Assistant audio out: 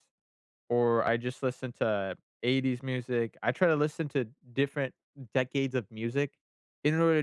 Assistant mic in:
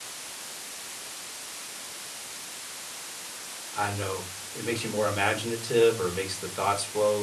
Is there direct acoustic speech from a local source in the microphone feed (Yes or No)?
Yes